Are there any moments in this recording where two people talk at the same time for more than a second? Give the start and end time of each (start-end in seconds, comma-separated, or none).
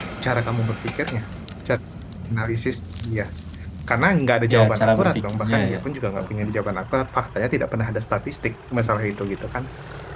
4.5-5.8